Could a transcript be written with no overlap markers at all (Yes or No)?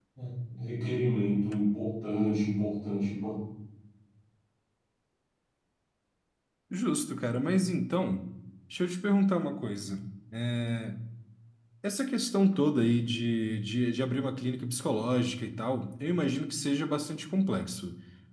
Yes